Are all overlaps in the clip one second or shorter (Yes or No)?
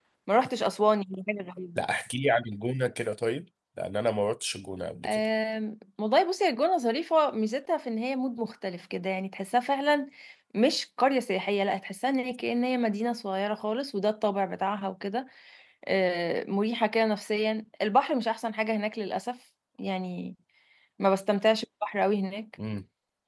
Yes